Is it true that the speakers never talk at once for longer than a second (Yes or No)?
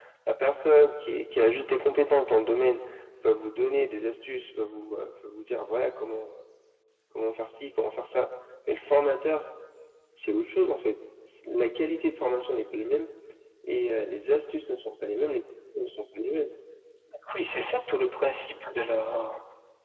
Yes